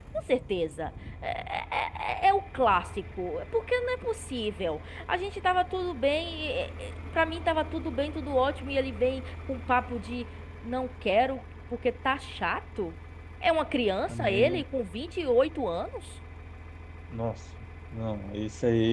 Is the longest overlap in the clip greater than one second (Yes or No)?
No